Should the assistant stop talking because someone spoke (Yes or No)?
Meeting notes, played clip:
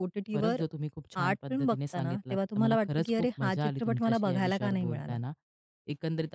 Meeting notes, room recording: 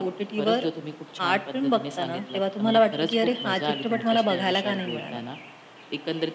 No